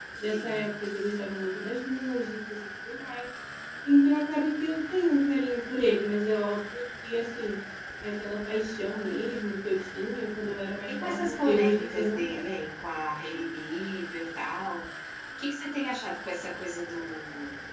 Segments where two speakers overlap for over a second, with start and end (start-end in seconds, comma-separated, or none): 10.9-12.5